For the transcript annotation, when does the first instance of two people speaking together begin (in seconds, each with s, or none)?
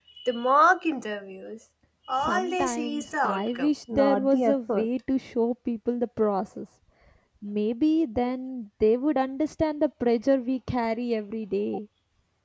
2.2 s